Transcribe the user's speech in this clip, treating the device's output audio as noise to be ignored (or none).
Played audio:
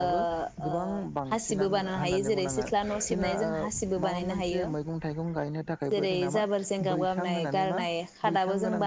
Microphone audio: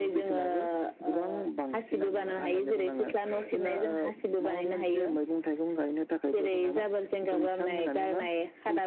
none